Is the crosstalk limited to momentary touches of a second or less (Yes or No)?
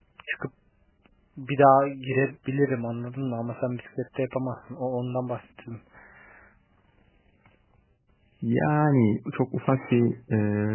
Yes